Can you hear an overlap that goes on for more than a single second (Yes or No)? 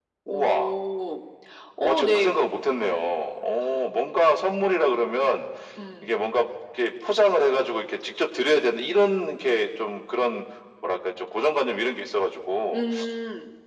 No